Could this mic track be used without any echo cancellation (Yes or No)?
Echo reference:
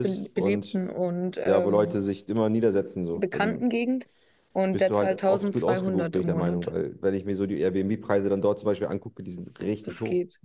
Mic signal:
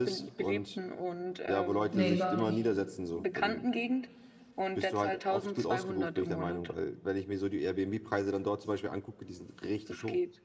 No